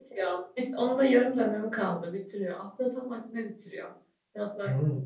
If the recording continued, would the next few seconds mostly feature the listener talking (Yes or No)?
Yes